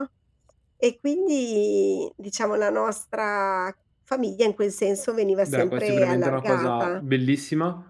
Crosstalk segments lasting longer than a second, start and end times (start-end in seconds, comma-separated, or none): 5.5-7.0